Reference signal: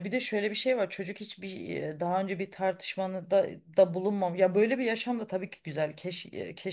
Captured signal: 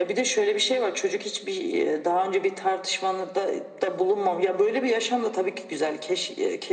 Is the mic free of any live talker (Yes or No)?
Yes